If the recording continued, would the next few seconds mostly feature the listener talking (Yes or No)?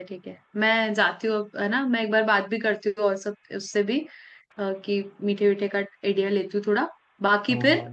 No